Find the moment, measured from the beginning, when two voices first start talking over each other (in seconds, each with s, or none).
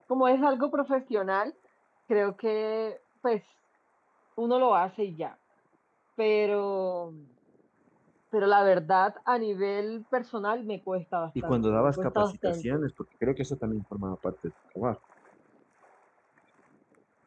11.4 s